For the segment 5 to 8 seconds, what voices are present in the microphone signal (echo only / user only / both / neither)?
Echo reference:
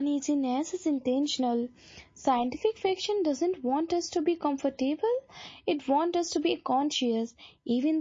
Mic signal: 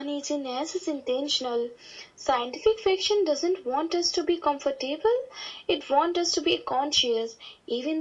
echo only